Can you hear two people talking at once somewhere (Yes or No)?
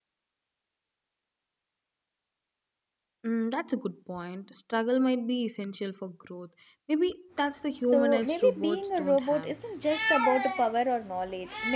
Yes